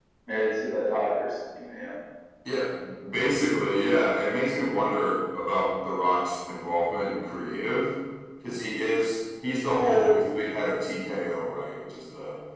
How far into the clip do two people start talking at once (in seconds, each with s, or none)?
none